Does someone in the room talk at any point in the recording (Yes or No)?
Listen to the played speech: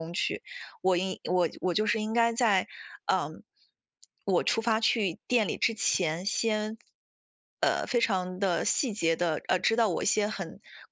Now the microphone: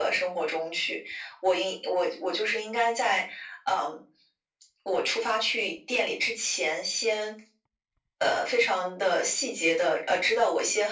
No